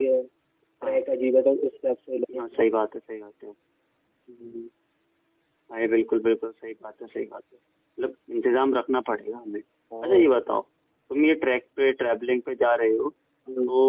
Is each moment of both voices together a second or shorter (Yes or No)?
Yes